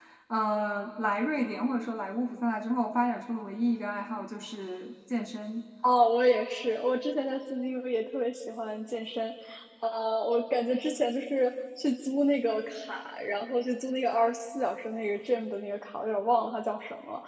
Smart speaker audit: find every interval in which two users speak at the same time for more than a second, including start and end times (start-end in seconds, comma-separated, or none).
none